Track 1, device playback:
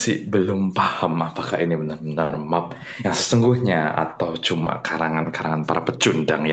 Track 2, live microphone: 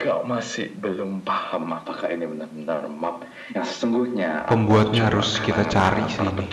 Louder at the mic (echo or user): user